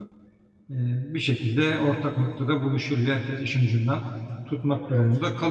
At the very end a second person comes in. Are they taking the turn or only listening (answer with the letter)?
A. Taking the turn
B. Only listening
B